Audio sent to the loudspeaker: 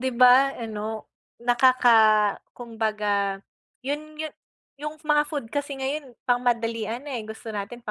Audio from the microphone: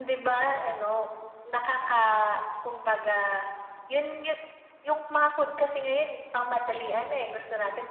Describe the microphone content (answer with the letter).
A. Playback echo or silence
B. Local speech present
A